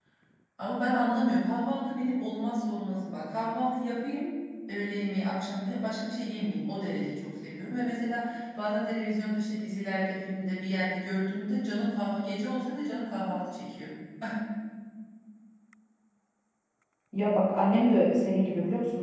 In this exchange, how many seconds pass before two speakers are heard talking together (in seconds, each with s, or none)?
none